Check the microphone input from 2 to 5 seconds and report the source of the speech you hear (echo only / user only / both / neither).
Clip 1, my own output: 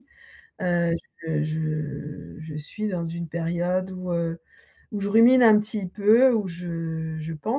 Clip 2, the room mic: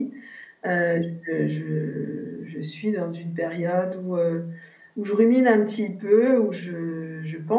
echo only